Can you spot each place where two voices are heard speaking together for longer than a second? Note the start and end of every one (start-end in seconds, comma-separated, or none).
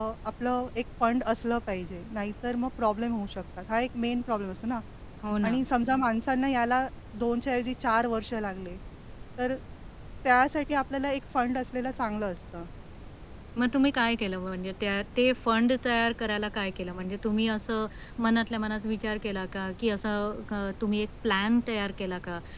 none